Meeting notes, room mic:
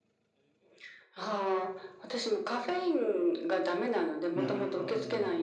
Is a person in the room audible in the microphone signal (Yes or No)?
Yes